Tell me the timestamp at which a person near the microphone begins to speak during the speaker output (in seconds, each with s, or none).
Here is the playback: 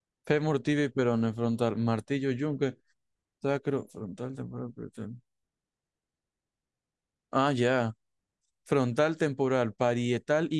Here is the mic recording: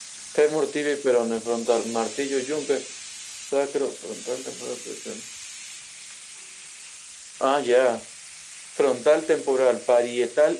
none